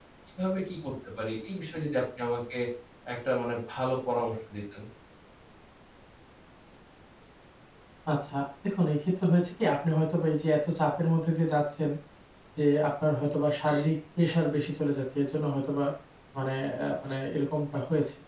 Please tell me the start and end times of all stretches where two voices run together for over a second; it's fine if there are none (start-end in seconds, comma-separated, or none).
none